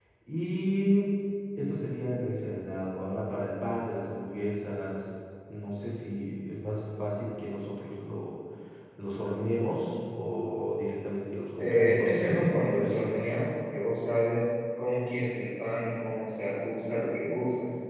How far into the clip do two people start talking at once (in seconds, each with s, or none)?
11.6 s